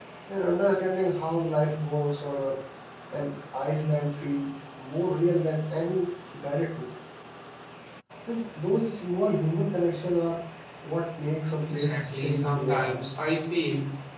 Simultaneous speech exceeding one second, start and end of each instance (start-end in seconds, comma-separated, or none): 11.7-13.0